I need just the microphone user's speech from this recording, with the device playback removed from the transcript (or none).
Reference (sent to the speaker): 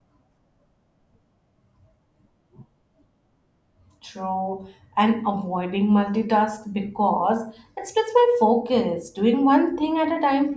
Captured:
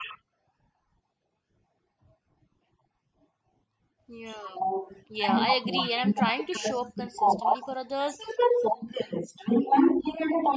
Yeah. Yeah, I agree, and I'm trying to show up consistently for others,